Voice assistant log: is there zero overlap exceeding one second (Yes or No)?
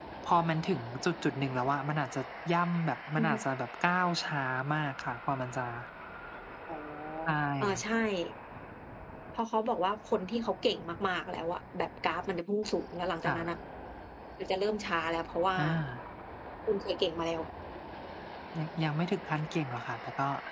Yes